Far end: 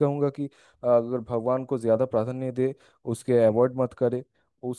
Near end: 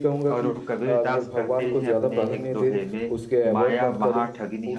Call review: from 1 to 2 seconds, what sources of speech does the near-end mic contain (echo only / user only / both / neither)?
both